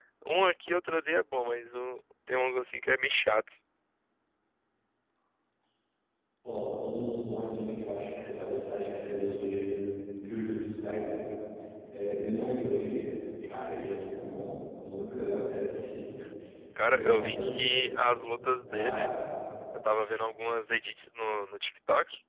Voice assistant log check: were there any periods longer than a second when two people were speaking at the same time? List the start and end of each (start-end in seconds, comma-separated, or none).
16.8-18.0